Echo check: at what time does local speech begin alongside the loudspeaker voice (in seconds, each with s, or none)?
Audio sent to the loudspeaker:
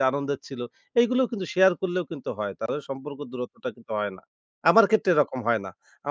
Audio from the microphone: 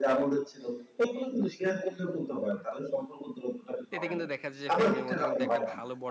3.9 s